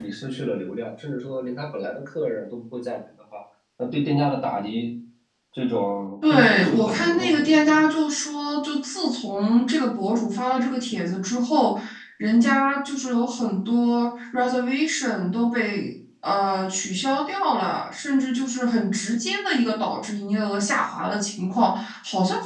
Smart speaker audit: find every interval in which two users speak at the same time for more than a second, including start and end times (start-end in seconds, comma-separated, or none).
6.2-7.8